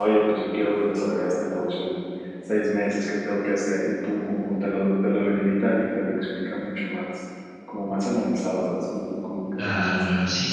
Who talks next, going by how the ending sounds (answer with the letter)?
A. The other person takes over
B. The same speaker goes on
A